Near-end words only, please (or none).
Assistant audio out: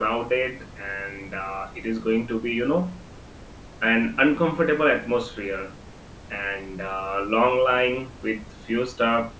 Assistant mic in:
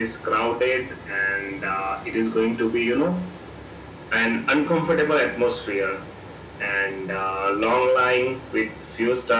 none